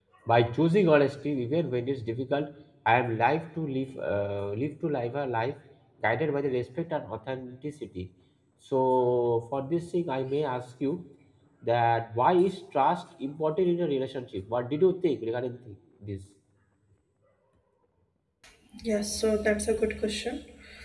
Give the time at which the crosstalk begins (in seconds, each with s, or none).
none